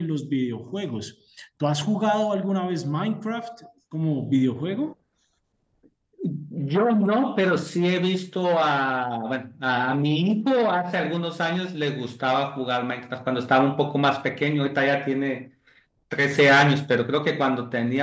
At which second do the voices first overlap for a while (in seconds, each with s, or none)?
none